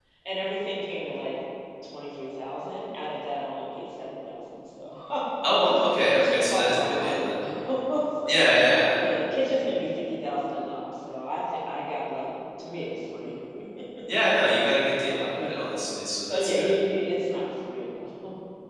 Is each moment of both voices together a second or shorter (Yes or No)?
No